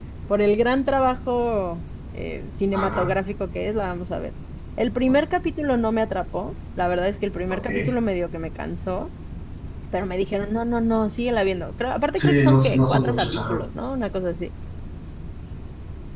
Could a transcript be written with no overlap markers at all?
No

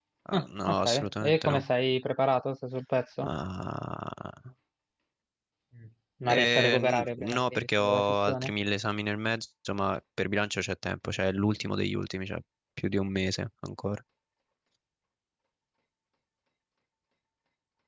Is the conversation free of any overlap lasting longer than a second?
No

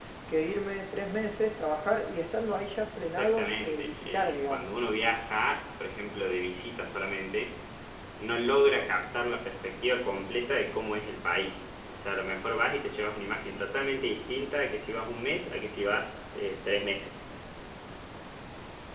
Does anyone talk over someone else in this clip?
Yes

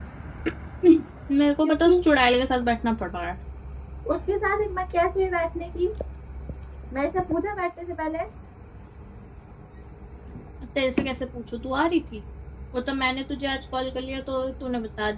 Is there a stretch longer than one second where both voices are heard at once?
No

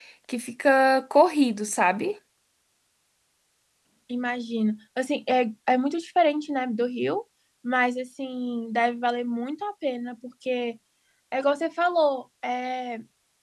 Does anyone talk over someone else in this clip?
No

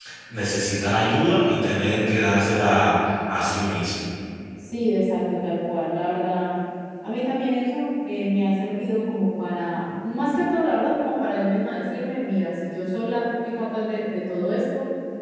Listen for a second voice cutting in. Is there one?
No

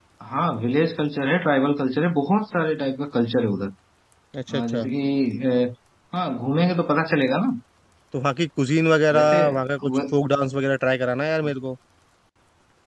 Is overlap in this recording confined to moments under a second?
Yes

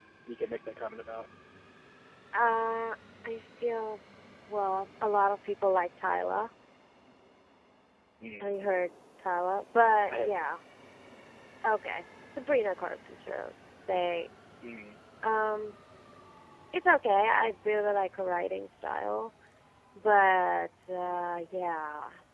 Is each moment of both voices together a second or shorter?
Yes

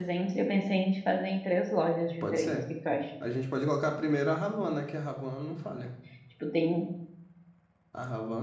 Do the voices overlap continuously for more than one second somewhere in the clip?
No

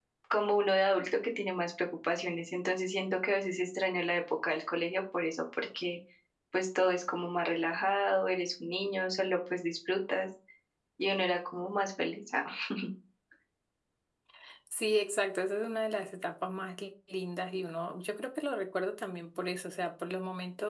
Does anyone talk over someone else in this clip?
No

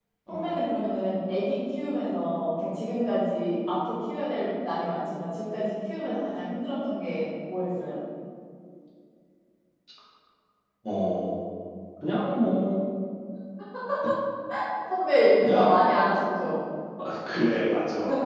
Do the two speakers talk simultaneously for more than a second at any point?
No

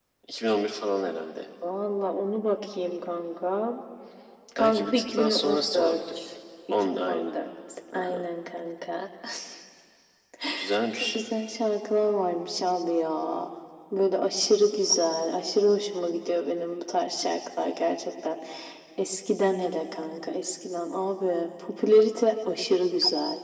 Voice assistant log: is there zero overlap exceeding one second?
No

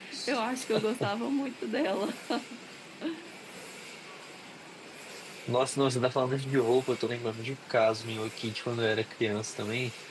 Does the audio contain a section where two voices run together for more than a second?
No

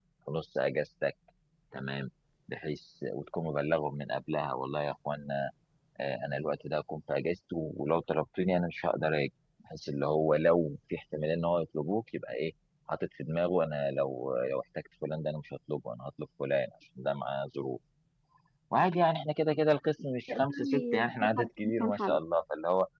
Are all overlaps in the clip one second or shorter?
No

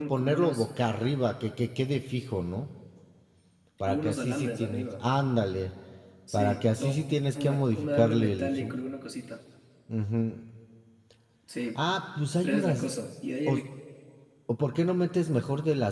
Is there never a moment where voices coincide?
No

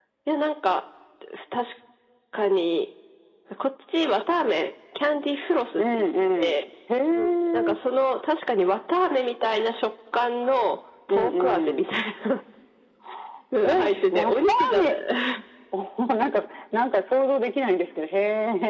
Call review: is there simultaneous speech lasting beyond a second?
Yes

